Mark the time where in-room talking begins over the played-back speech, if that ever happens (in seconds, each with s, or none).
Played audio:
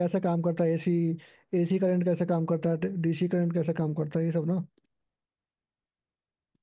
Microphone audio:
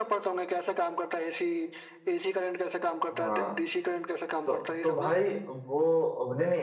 3.1 s